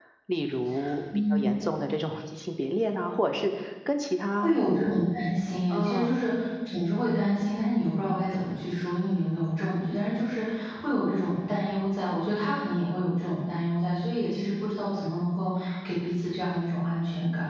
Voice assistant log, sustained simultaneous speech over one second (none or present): none